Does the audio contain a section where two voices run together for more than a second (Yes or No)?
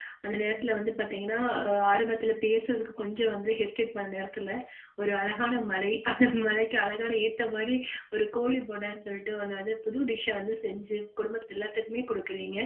No